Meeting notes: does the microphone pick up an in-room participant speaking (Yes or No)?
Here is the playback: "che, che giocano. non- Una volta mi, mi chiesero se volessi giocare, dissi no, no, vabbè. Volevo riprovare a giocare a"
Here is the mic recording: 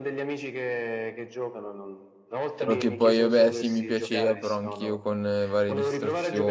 Yes